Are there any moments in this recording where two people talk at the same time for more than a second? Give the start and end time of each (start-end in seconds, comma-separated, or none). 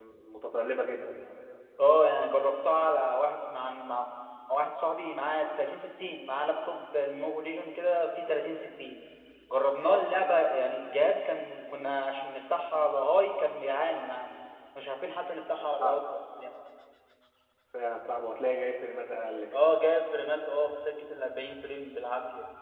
none